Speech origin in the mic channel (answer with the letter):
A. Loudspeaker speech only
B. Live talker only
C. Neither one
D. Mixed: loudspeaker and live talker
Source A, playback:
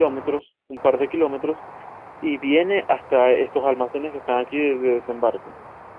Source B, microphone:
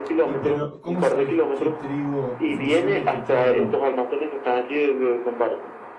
D